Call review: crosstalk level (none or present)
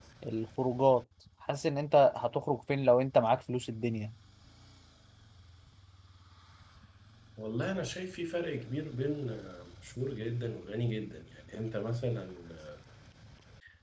none